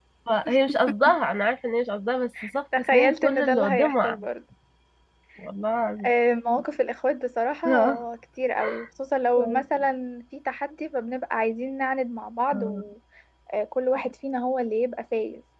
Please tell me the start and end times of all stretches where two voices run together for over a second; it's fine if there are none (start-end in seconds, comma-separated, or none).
2.9-4.2